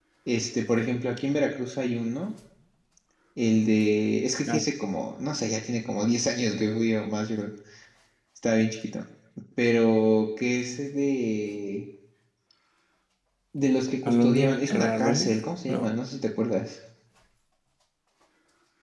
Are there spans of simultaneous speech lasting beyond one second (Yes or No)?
Yes